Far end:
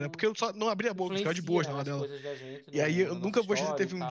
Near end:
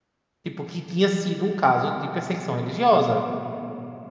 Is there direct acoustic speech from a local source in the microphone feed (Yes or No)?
Yes